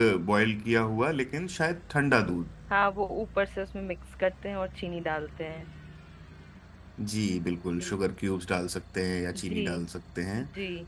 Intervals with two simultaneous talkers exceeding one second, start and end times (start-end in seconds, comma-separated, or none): none